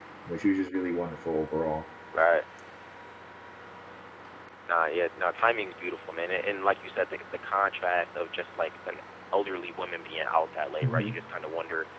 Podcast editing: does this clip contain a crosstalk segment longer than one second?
No

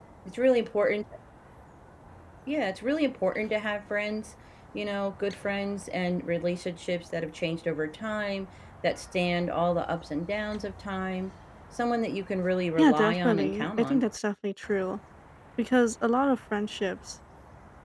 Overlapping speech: Yes, from 12.8 s

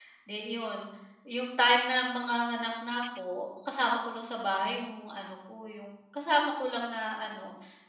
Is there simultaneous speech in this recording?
No

